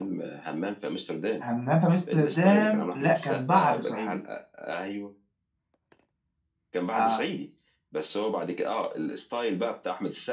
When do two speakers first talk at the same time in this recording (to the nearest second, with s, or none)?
2 s